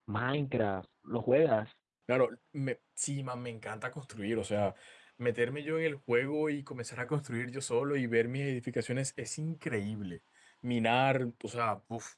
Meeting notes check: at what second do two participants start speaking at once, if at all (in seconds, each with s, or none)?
none